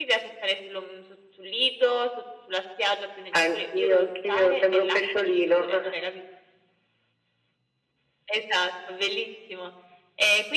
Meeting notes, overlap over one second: present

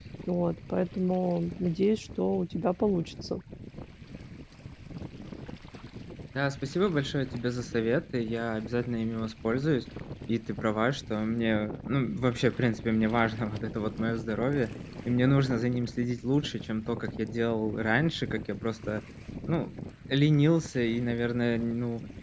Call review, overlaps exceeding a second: none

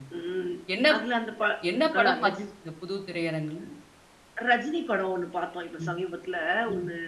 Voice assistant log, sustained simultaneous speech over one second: none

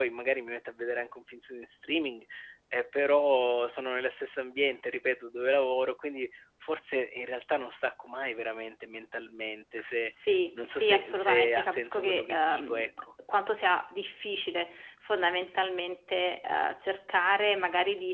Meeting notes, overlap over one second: present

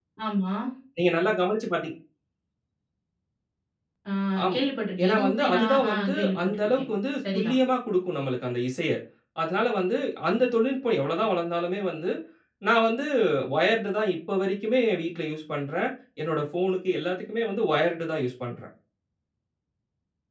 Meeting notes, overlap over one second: present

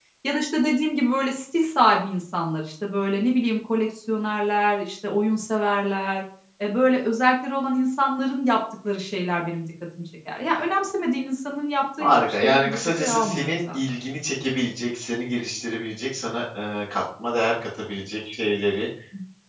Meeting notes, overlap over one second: present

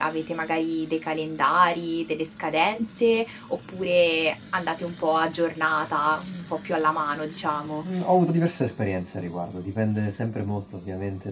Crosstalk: none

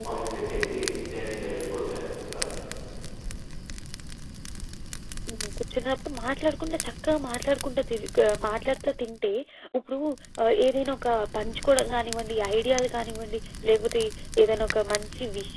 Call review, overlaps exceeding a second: none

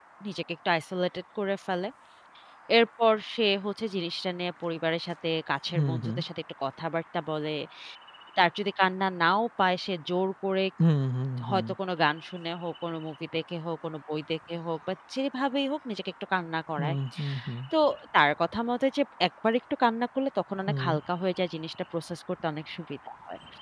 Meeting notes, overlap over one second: none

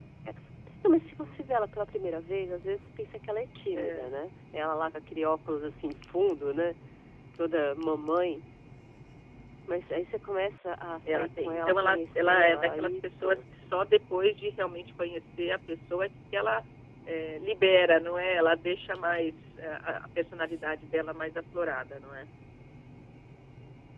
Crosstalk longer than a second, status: present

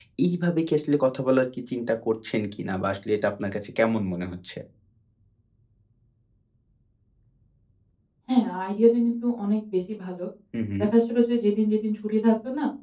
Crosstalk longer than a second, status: none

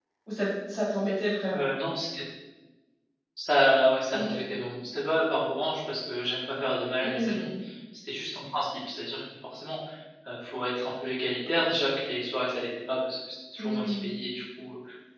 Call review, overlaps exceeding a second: none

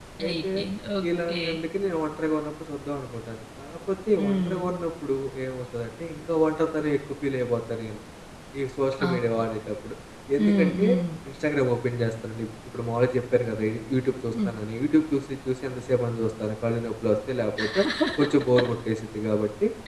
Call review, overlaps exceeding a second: none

